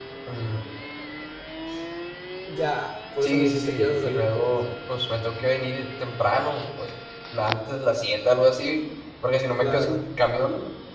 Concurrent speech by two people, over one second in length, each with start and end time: 3.2-4.6

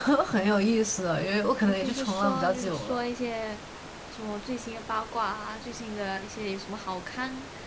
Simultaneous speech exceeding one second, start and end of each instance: 1.7-3.0

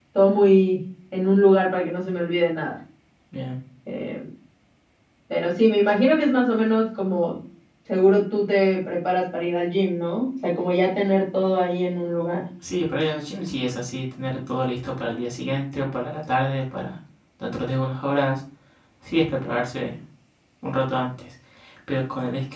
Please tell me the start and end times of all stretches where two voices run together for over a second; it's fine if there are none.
none

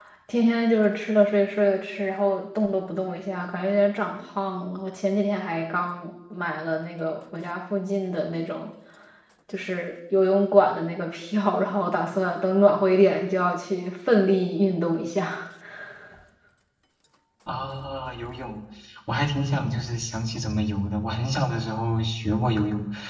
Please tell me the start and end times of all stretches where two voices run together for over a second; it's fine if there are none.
none

